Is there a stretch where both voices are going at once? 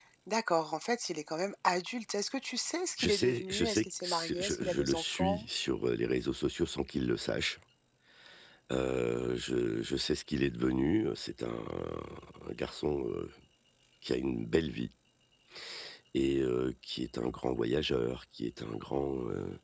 Yes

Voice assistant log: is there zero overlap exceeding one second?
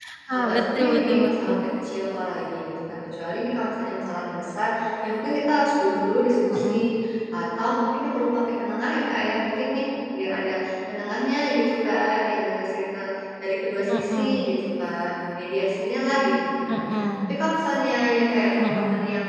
No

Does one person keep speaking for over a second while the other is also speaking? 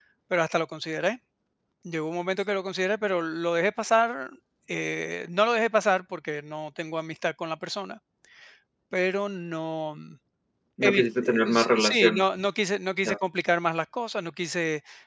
Yes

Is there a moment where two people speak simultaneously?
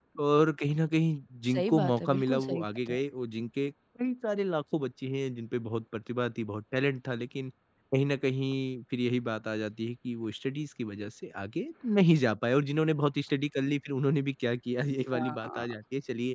Yes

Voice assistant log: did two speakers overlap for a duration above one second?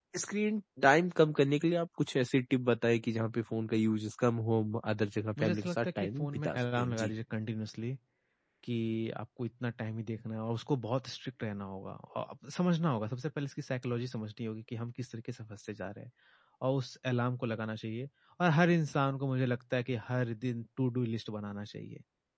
Yes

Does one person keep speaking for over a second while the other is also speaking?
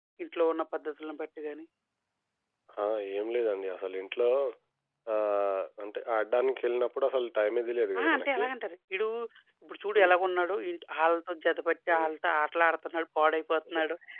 No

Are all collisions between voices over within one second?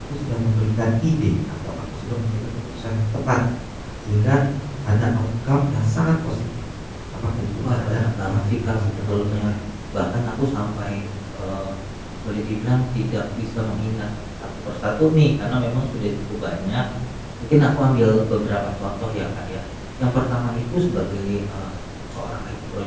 No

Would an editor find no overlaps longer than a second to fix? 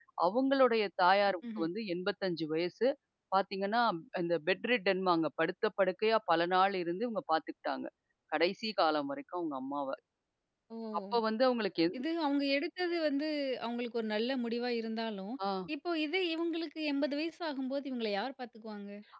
Yes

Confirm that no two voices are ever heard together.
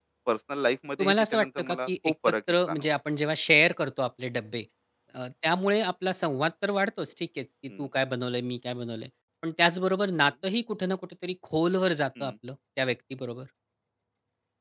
No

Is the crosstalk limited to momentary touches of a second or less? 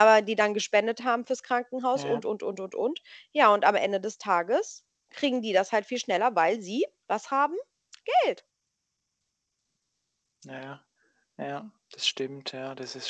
Yes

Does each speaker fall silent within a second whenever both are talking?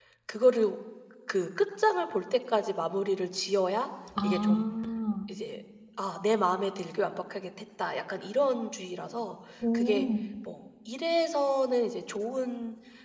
Yes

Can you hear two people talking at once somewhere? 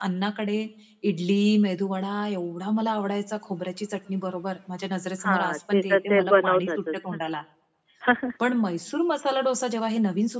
Yes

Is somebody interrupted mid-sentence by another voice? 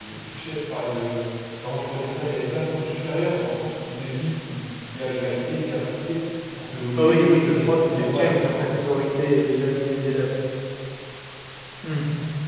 Yes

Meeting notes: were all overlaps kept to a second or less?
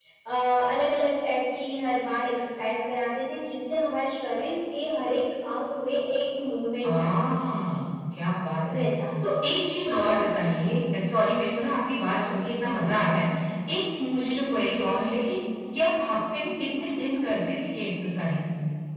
Yes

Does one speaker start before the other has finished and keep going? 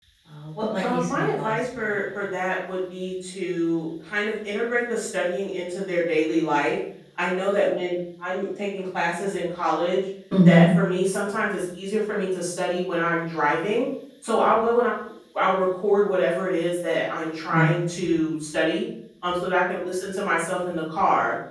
Yes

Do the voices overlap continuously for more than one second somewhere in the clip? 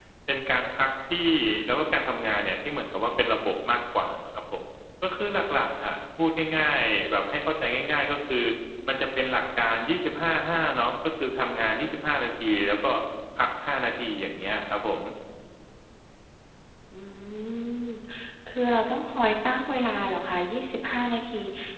No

